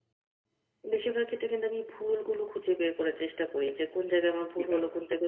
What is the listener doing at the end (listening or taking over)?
listening